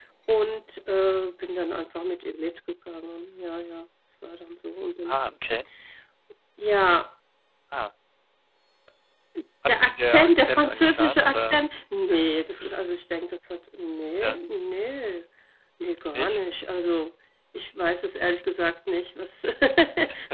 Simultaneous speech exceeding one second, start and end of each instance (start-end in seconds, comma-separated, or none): 9.7-11.6